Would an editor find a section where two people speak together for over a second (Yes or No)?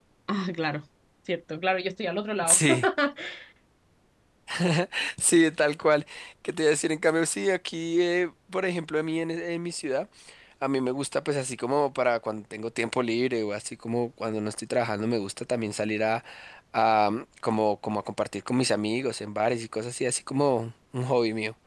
No